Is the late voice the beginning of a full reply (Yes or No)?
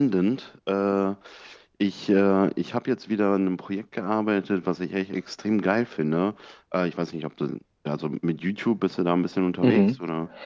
Yes